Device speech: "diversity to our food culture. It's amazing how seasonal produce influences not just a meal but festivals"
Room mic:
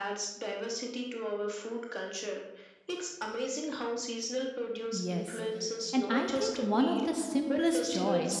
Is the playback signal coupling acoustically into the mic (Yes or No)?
Yes